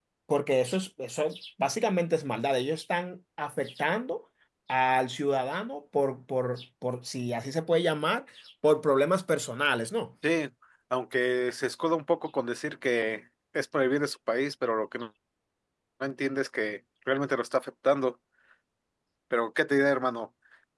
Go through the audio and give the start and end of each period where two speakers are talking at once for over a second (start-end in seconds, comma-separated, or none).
none